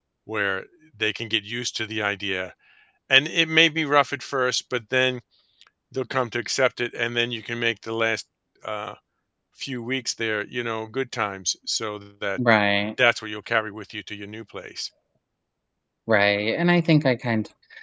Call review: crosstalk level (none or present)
none